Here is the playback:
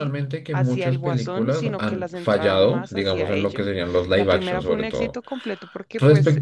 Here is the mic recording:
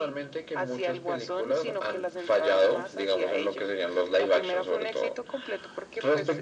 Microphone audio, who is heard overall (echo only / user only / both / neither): echo only